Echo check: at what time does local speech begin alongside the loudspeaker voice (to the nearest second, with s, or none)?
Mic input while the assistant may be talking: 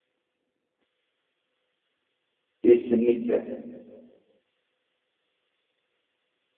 3 s